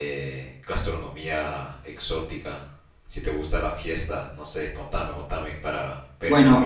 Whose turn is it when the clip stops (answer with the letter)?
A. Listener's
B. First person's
A